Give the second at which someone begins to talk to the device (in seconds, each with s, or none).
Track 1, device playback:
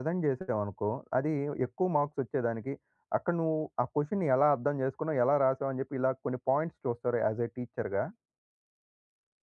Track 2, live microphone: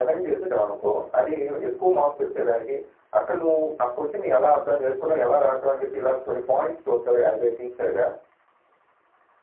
none